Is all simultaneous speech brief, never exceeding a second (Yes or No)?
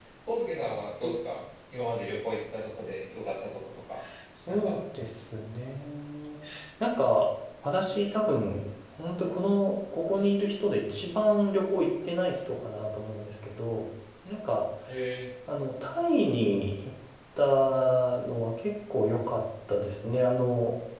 Yes